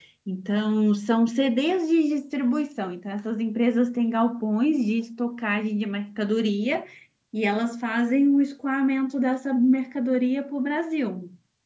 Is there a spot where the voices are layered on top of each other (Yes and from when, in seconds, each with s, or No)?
No